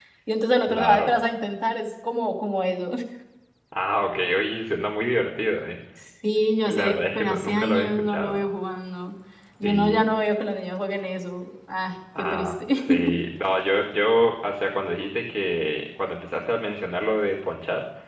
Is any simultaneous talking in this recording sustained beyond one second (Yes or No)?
Yes